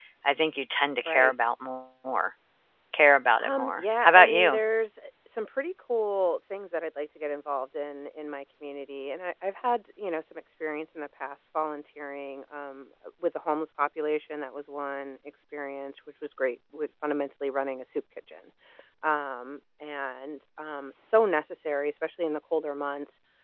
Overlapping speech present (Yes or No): Yes